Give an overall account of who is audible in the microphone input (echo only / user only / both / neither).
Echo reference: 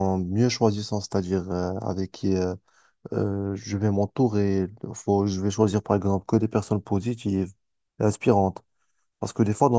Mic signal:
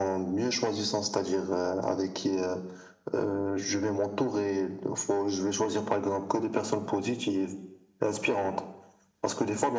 echo only